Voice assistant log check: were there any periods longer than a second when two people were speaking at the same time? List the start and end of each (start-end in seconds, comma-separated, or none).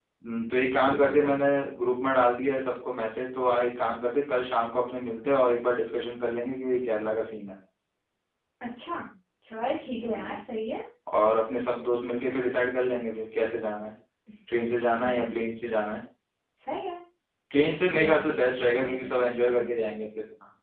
17.9-19.7